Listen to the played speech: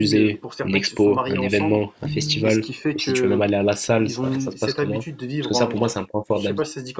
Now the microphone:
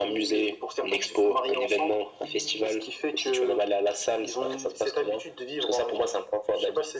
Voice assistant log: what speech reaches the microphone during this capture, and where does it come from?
echo only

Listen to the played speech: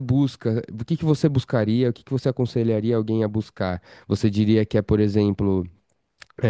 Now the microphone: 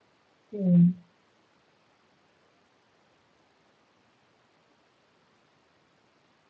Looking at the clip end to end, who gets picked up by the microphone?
user only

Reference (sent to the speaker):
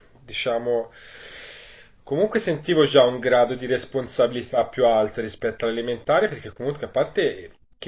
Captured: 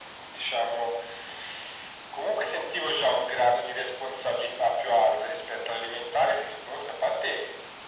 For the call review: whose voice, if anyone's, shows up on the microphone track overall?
echo only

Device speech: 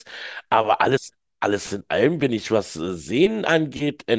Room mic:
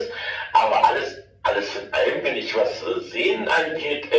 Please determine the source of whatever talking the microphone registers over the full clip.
echo only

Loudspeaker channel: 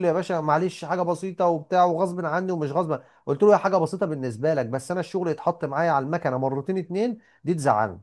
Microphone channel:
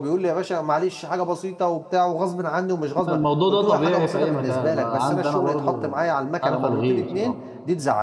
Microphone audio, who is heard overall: both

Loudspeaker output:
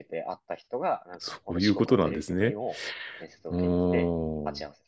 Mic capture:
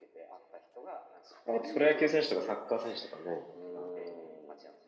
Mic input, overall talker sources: both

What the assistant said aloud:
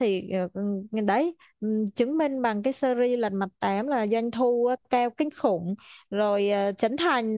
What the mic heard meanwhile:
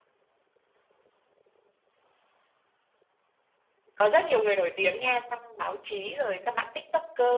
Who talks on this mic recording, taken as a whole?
user only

